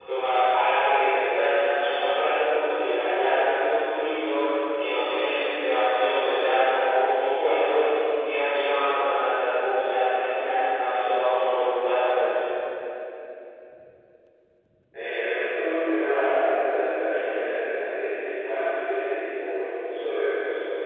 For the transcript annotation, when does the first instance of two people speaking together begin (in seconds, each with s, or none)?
none